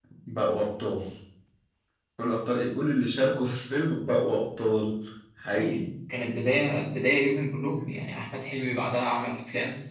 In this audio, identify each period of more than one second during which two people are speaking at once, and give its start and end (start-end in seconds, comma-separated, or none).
none